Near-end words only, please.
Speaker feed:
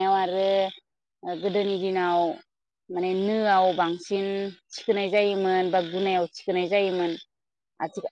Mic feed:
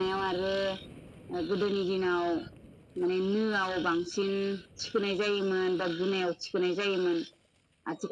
none

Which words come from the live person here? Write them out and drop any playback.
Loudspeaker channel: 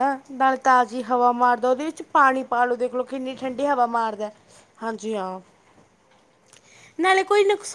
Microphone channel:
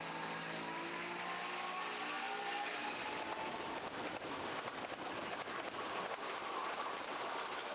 none

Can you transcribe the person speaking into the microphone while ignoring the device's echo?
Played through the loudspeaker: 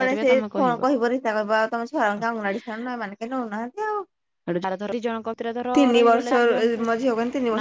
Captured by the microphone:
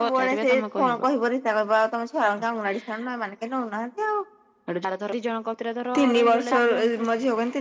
none

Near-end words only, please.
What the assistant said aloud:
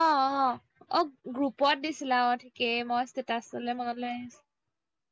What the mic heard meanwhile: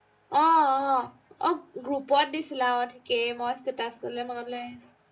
none

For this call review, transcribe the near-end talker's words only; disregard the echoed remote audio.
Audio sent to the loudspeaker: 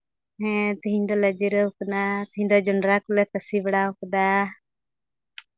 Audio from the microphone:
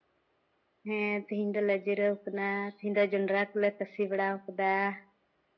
none

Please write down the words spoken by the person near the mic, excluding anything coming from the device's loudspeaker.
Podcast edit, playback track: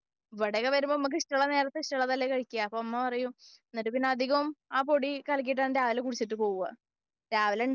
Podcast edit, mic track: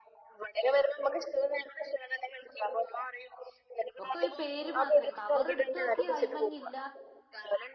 ഒക്കെ ഒരു പേര് മാത്രമേ കവർ എടു തോക്കി അയ്മഞ്ഞില്ല

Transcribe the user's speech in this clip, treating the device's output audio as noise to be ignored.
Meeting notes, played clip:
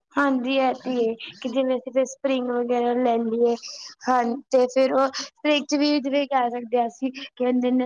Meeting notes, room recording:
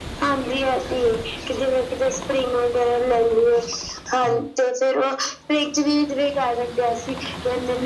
none

